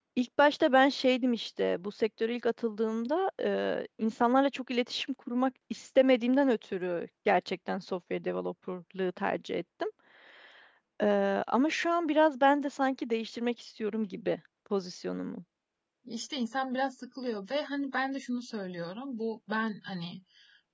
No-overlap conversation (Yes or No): Yes